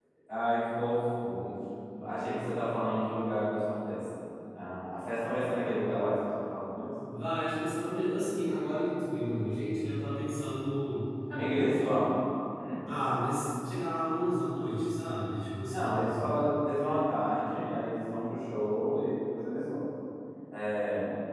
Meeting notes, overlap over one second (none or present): none